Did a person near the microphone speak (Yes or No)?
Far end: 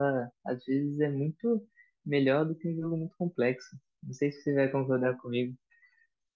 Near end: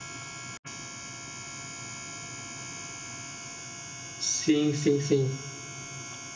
Yes